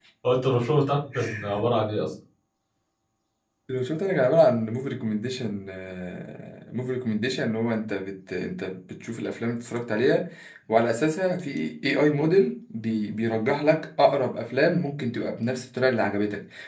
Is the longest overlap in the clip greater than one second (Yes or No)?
No